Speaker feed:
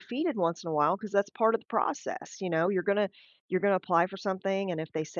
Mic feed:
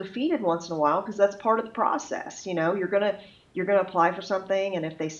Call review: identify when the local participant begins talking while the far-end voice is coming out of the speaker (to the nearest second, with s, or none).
none